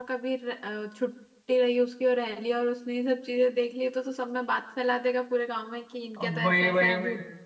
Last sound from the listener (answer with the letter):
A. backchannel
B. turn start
B